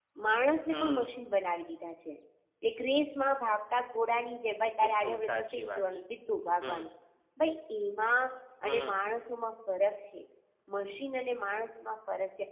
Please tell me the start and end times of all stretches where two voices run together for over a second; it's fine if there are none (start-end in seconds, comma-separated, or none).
4.8-6.0